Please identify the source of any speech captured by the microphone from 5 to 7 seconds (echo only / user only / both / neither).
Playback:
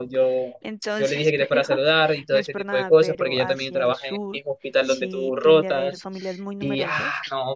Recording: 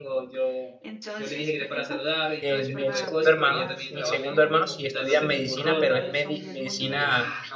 both